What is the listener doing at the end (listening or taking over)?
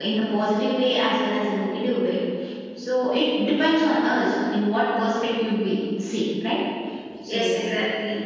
taking over